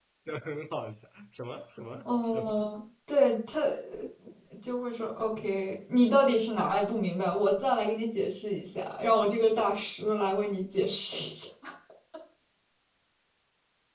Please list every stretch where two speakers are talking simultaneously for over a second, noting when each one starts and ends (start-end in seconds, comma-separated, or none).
none